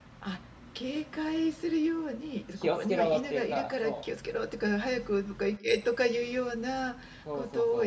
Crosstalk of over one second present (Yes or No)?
Yes